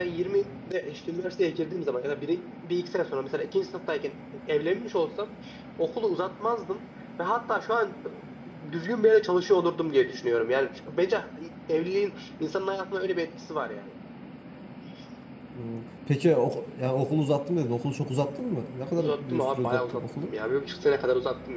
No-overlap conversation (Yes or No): No